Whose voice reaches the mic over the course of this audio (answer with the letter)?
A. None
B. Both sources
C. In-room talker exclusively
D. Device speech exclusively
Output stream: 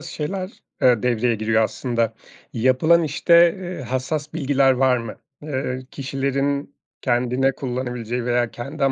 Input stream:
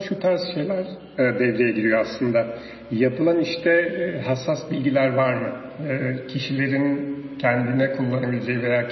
D